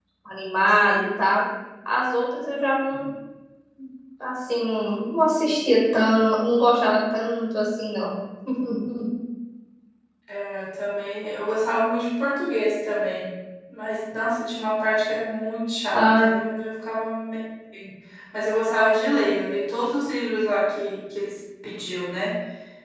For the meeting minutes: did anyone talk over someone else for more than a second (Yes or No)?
No